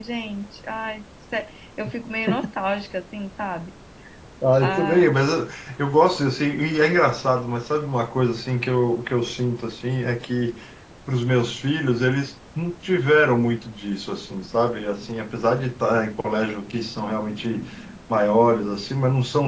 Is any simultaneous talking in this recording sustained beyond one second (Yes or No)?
No